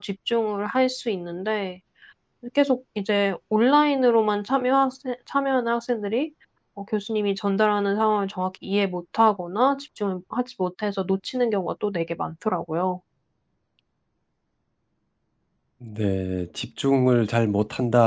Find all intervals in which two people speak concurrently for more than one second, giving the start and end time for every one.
none

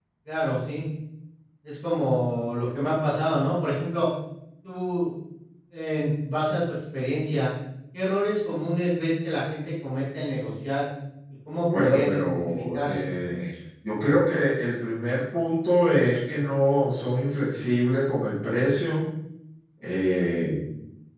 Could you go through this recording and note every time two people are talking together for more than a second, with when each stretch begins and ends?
11.7-13.1

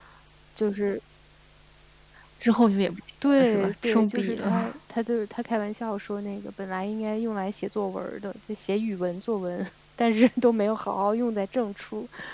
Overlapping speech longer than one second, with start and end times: 3.2-4.5

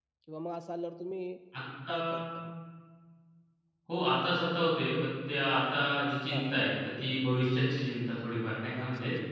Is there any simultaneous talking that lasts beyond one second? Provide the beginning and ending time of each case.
none

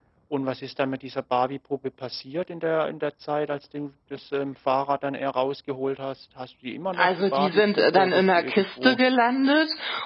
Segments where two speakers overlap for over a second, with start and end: 7.0-9.0

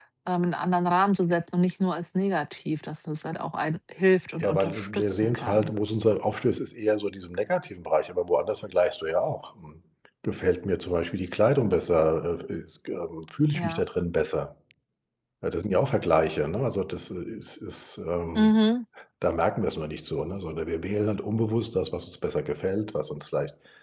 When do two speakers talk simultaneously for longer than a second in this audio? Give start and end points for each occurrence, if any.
4.4-5.7

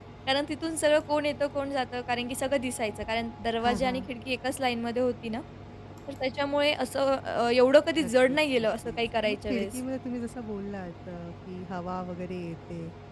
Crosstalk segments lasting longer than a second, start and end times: 8.0-9.8

